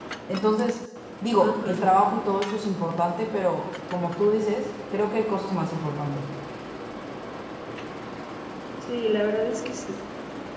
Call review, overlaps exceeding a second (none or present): none